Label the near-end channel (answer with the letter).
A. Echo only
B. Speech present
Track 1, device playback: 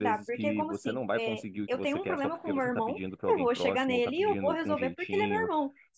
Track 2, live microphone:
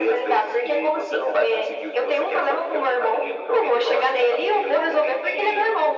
A